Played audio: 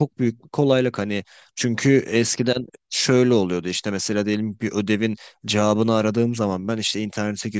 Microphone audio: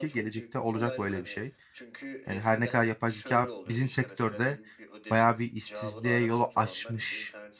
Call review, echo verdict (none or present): present